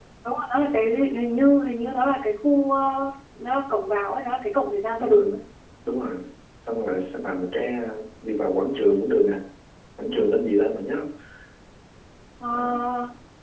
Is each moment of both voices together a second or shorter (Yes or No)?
Yes